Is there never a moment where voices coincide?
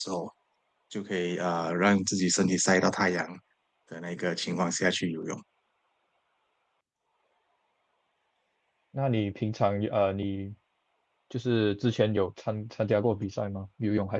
Yes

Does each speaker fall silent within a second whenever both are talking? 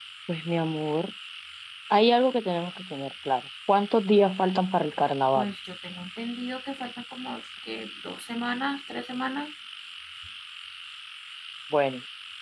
Yes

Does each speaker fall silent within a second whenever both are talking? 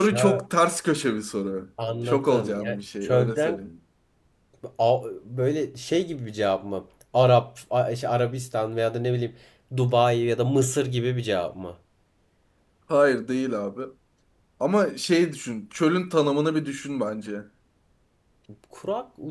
No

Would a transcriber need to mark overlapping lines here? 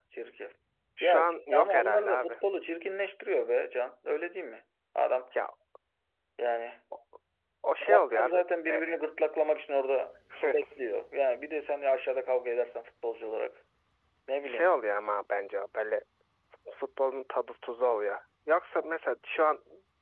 Yes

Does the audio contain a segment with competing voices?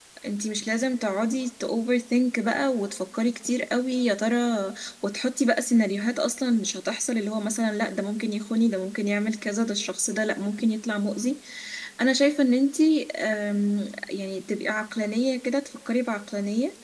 No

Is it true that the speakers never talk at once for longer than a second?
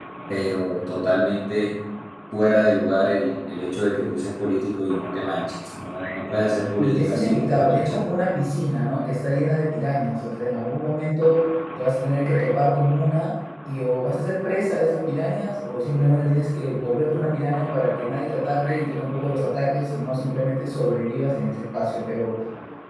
No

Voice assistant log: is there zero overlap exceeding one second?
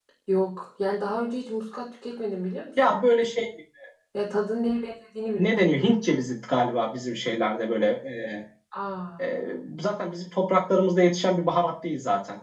Yes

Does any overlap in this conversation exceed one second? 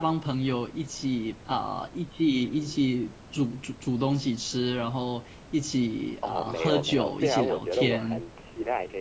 Yes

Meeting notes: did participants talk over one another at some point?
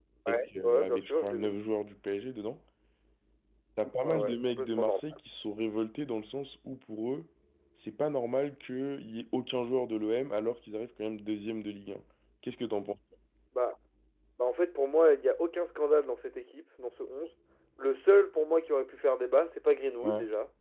Yes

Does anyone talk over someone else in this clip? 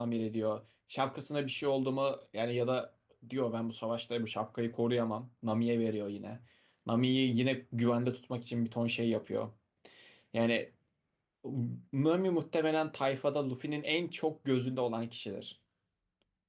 No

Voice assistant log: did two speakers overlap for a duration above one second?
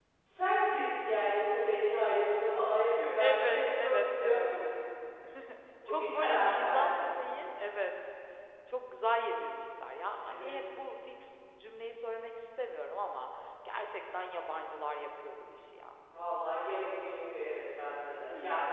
Yes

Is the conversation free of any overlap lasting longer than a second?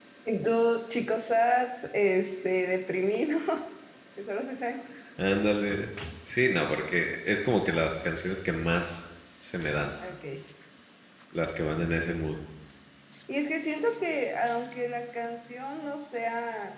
Yes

